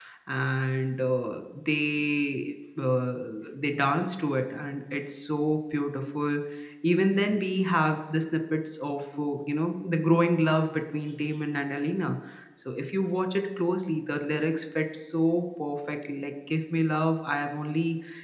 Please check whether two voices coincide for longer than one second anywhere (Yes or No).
No